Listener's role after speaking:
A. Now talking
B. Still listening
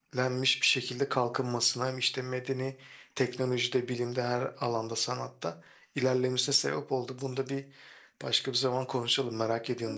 A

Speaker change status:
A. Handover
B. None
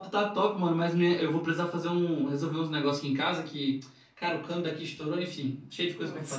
A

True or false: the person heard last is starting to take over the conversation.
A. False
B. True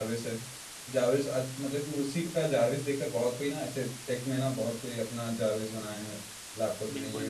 B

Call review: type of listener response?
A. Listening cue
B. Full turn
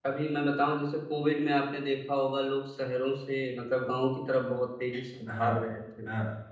B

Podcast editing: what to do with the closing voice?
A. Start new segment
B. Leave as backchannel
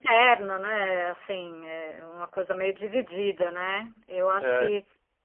B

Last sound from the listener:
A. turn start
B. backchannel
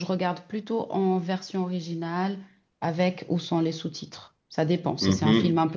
A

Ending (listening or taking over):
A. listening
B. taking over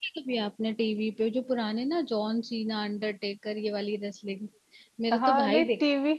B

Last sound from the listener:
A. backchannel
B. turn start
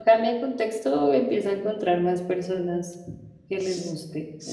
B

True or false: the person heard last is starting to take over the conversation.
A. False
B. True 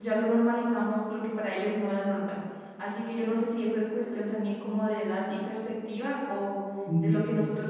A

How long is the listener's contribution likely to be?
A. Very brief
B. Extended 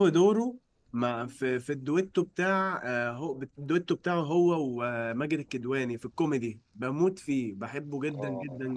B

